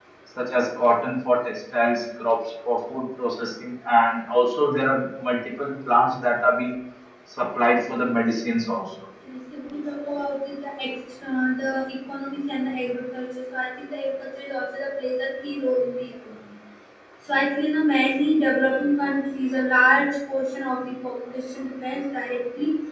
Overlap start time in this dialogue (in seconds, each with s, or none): none